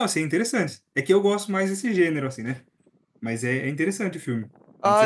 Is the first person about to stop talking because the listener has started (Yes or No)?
Yes